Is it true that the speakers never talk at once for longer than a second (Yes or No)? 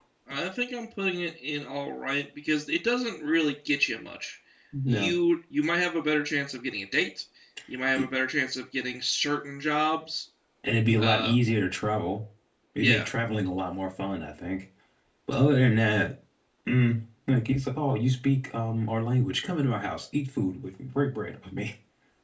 Yes